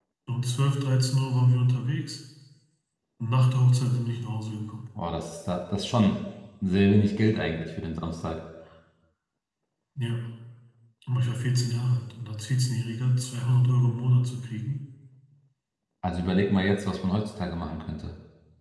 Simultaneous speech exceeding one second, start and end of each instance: none

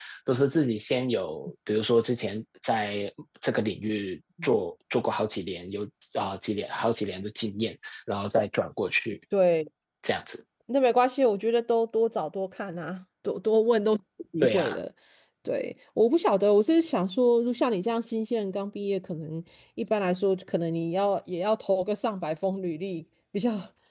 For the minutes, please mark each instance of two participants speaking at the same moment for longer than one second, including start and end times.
none

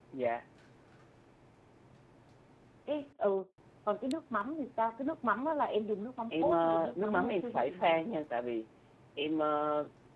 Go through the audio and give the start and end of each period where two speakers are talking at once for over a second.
6.3-8.2

